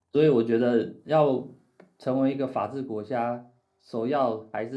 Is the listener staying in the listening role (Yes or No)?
Yes